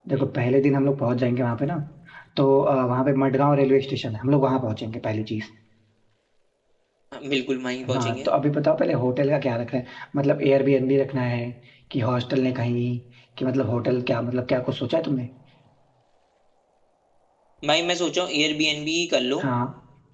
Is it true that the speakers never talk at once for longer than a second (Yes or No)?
Yes